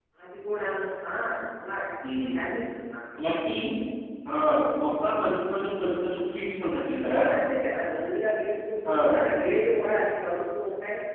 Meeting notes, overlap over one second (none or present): none